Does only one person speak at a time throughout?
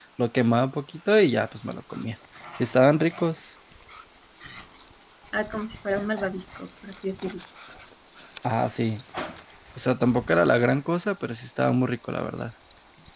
Yes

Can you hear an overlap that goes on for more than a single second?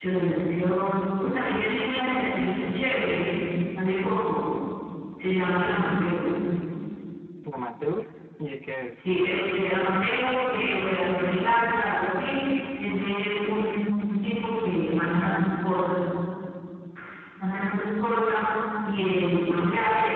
No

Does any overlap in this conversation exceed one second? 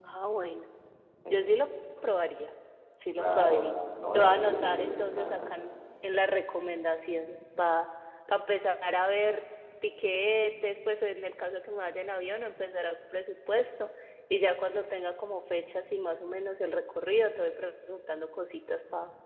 Yes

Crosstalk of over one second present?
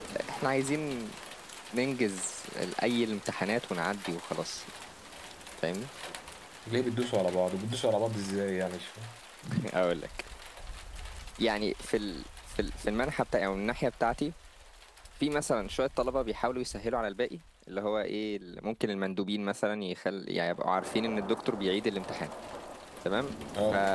No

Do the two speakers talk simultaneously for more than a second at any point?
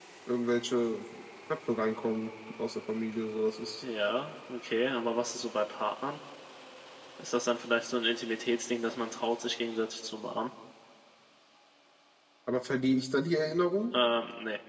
No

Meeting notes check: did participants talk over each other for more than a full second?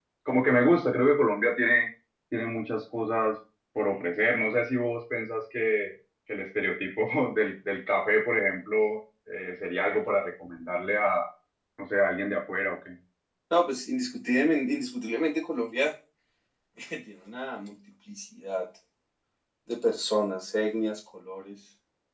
No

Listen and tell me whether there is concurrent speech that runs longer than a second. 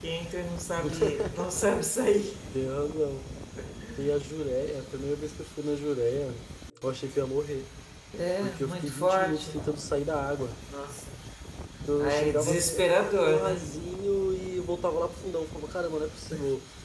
Yes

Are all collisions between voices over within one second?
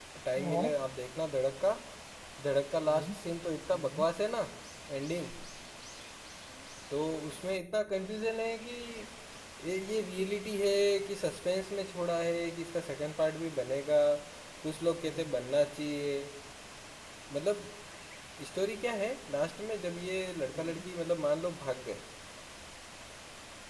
Yes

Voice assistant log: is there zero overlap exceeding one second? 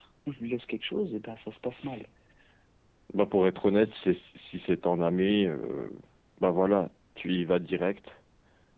Yes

